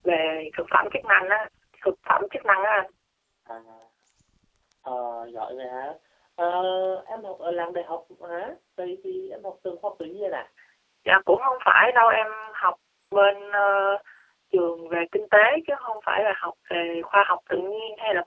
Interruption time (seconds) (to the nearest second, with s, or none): none